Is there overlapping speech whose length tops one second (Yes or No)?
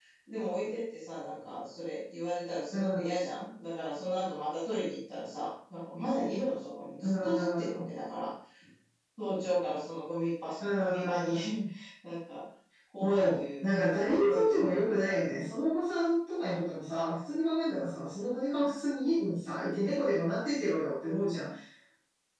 Yes